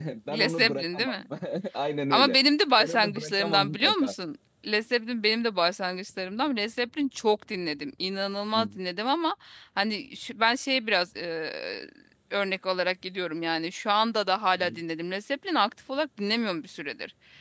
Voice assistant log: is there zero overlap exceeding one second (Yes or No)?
No